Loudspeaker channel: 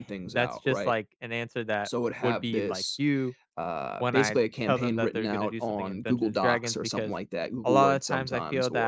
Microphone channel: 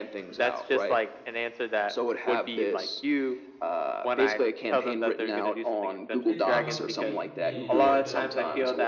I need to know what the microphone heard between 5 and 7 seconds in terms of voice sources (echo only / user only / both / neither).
both